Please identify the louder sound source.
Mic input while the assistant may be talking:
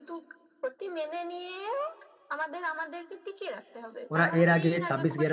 user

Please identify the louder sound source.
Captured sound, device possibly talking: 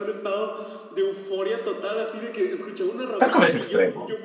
user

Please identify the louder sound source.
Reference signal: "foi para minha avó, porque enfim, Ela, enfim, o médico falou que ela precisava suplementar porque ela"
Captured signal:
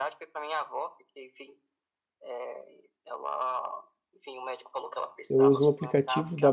user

